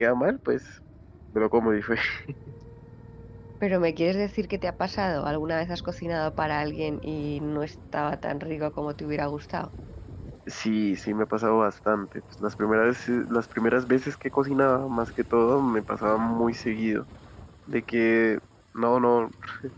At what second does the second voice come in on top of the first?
none

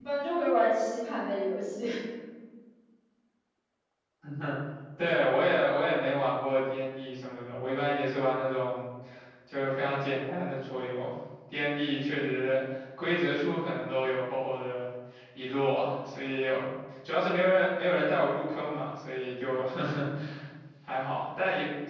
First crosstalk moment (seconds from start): none

